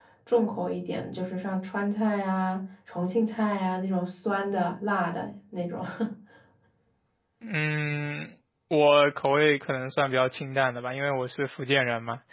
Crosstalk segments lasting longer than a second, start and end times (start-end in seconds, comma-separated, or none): none